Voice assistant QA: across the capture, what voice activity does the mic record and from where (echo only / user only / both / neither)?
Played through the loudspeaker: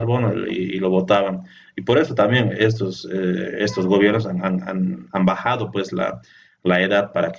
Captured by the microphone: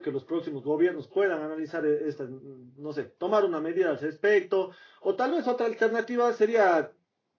user only